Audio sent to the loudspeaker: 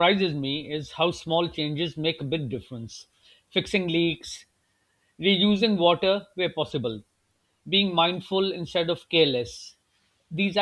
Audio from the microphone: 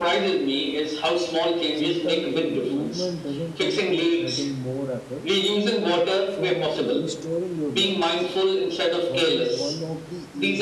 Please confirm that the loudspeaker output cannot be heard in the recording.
No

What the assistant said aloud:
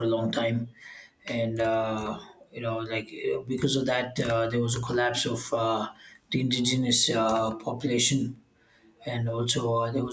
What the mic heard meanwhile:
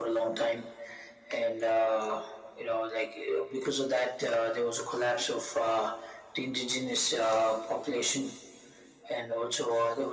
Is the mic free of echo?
No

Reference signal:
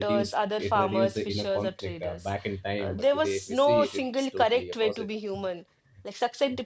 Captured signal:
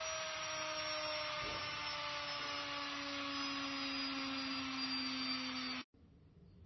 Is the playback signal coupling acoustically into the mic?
No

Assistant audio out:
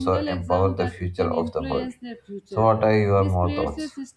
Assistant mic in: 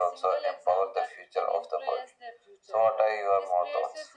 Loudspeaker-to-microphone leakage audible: Yes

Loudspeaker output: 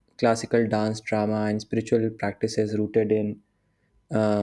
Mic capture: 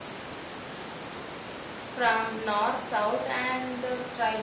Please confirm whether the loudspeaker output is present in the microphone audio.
No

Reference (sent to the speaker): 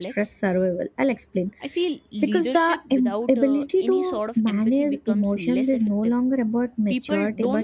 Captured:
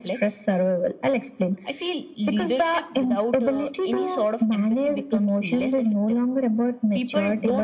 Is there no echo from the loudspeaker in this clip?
No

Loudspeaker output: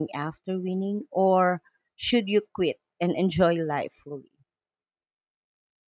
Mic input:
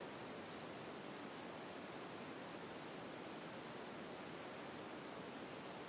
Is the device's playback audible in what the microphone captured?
No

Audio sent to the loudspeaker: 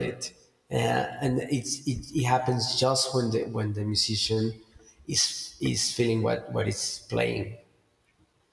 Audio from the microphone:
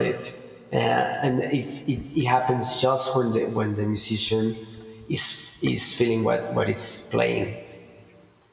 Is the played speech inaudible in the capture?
No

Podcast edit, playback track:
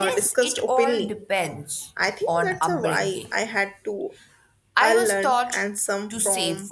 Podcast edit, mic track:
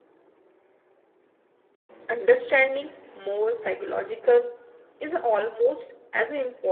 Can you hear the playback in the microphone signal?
No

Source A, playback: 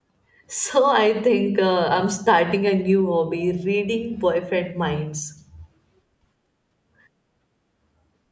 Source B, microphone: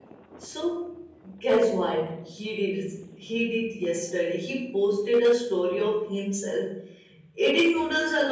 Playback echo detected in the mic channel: No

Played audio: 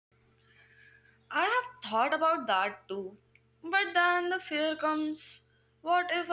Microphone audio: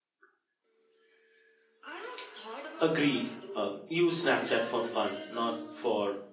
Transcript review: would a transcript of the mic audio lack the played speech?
No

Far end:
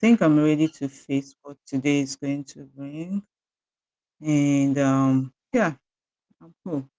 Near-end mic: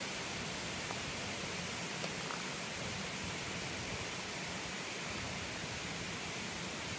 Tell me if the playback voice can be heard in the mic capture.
No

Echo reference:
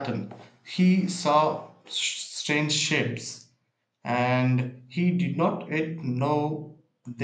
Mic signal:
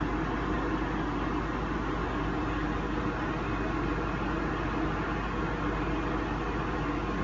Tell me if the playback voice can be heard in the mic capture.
No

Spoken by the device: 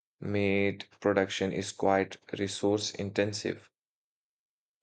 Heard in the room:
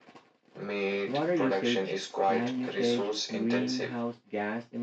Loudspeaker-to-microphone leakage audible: Yes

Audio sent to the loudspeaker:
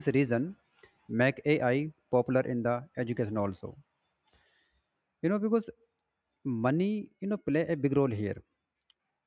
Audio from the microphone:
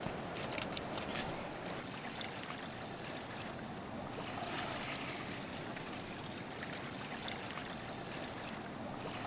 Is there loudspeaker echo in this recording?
No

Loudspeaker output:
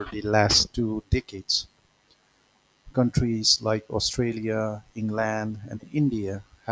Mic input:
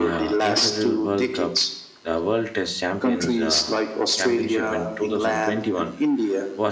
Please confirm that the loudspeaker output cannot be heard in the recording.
No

